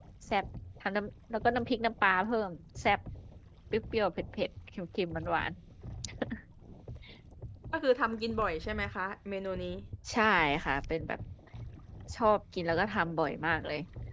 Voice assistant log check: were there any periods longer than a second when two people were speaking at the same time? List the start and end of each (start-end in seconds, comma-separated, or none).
none